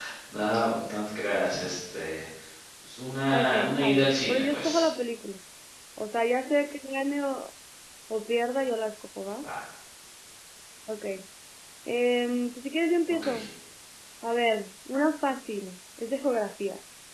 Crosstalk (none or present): present